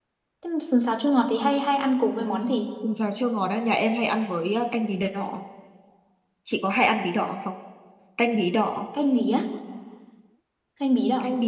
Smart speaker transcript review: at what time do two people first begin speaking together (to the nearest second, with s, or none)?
none